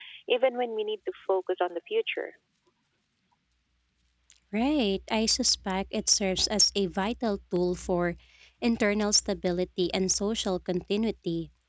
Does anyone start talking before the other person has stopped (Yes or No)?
No